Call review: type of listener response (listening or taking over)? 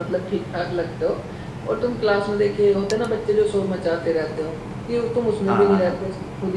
listening